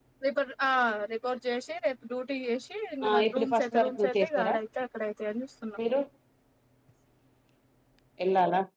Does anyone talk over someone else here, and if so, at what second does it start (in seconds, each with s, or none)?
3.0 s